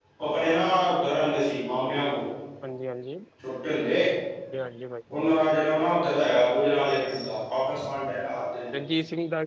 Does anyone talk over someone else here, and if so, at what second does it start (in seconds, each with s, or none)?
none